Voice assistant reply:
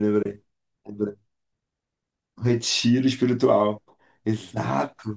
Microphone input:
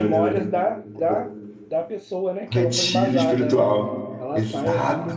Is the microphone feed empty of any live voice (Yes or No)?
No